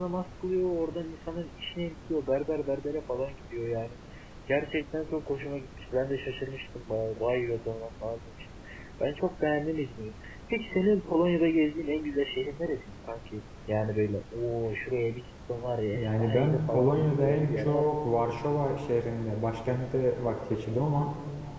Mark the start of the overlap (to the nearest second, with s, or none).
16 s